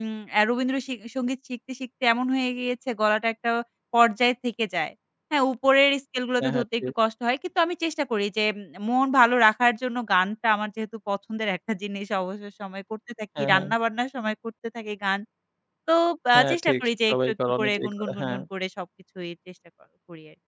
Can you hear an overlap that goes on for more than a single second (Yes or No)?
Yes